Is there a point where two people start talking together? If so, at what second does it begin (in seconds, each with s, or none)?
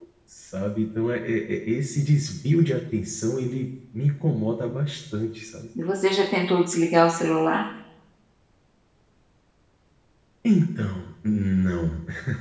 none